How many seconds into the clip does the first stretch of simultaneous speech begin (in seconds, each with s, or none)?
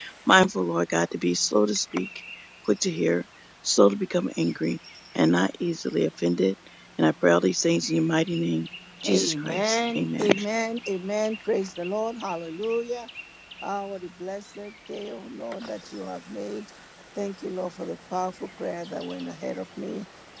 9.0 s